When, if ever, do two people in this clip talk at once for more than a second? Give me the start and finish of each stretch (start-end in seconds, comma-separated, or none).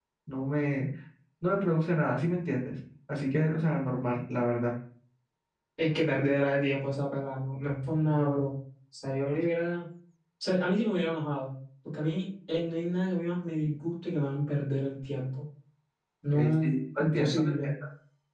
16.3-17.7